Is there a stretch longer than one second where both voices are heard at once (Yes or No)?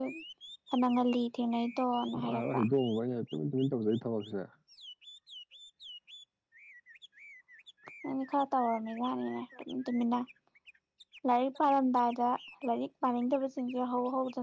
No